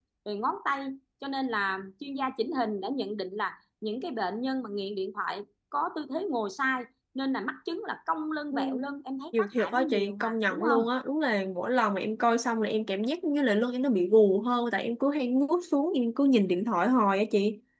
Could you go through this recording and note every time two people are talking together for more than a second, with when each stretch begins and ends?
9.4-10.8

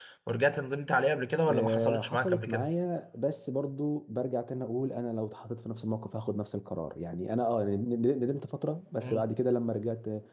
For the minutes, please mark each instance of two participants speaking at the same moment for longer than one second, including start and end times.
1.5-2.7

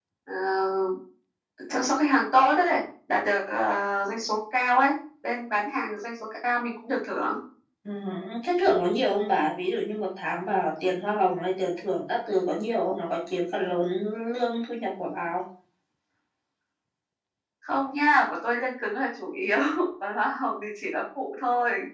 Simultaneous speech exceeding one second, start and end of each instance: none

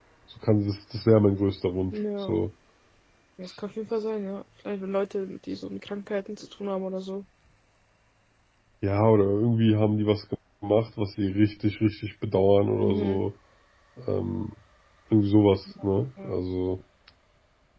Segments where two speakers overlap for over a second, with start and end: none

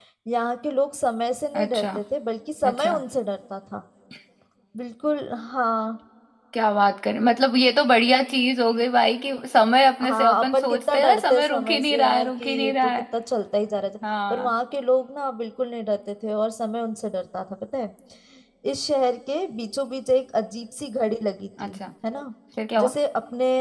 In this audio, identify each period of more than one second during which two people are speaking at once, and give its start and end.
10.0-13.0

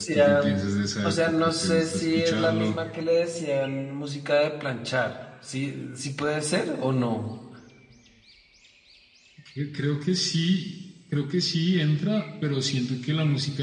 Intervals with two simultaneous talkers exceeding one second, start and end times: 1.0-2.8

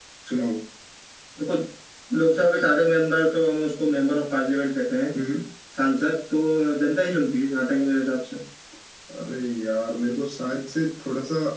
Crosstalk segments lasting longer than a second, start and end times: none

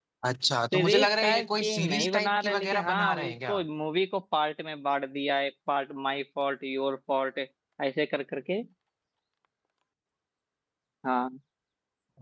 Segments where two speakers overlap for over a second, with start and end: 0.7-3.6

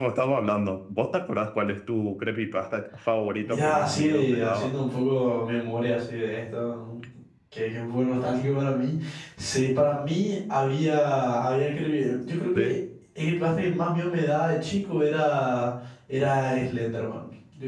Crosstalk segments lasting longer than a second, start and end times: 3.4-4.7

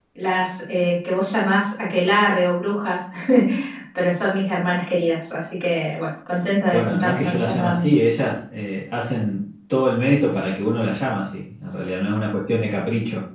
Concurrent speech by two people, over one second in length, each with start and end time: 6.7-8.0

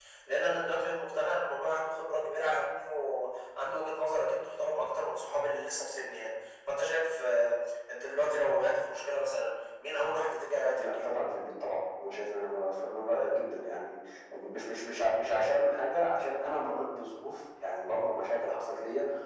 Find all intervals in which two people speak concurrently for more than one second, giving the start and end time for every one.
none

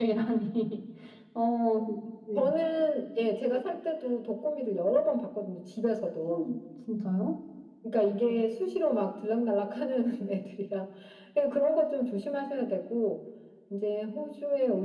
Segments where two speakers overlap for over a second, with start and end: none

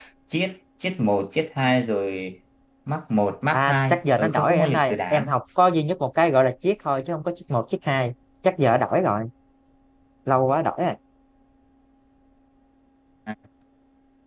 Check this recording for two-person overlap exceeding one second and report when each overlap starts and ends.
3.5-5.3

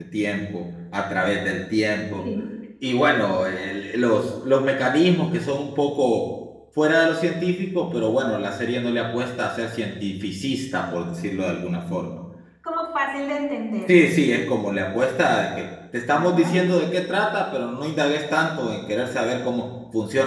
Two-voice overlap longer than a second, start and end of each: none

